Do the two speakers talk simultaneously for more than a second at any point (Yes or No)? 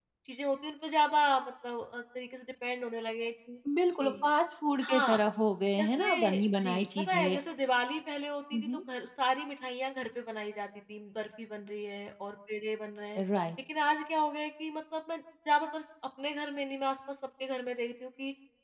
Yes